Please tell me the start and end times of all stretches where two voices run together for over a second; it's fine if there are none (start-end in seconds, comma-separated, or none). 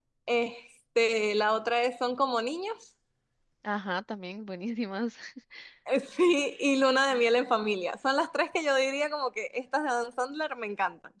none